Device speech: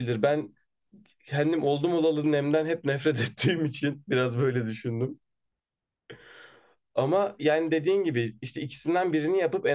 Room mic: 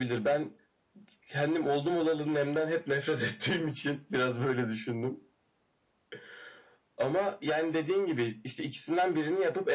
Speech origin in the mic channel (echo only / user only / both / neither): echo only